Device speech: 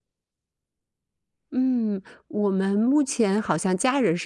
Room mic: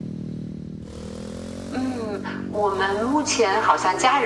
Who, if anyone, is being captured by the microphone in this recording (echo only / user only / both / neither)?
echo only